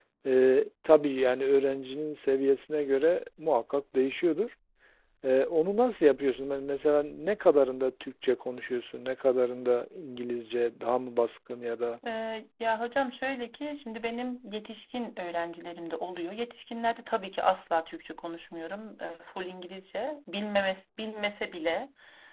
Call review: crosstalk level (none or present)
none